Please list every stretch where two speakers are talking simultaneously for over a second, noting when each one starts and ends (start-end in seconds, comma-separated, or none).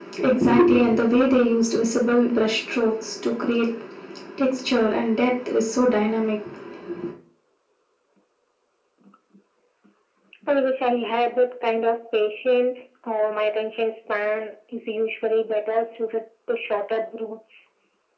none